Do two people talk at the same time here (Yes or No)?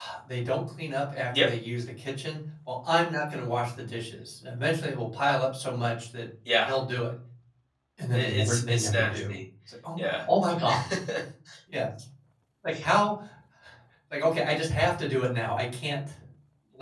Yes